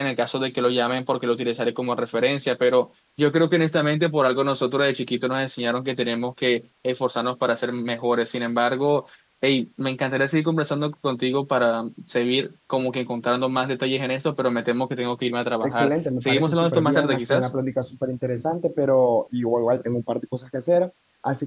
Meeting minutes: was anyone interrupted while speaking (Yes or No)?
Yes